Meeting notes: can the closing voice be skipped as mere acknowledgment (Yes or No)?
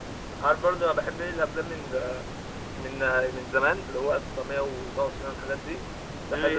Yes